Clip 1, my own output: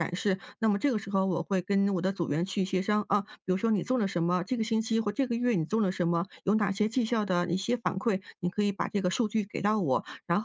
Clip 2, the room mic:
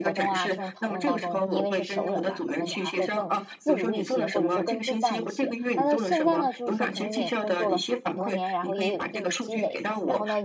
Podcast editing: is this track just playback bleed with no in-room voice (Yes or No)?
No